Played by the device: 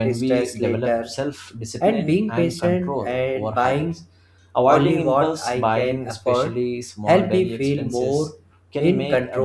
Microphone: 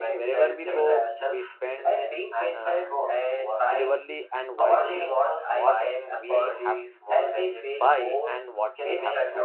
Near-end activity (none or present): present